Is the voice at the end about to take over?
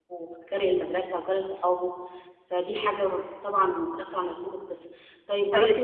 No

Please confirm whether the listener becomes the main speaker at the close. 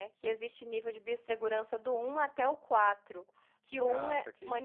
No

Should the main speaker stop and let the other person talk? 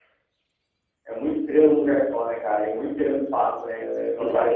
Yes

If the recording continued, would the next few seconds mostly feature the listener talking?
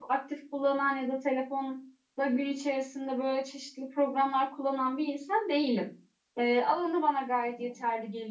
No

